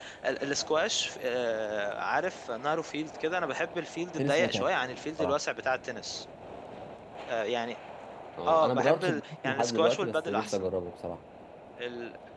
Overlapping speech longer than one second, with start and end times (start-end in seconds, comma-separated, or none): 8.4-10.6